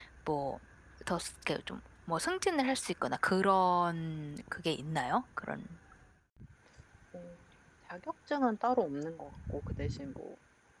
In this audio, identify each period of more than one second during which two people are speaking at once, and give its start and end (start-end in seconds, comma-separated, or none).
none